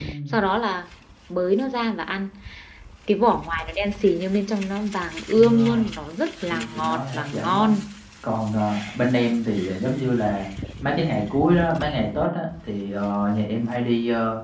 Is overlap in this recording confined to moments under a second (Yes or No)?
No